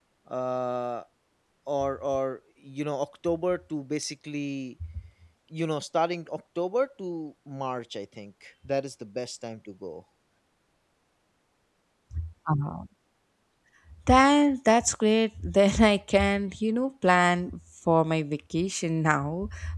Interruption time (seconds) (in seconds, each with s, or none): none